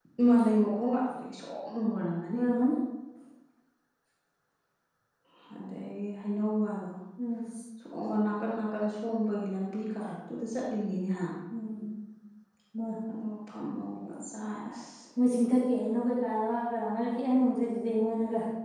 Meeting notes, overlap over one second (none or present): none